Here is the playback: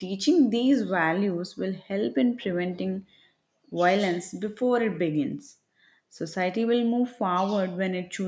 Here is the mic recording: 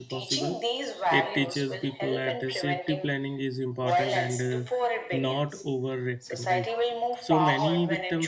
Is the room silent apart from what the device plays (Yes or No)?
No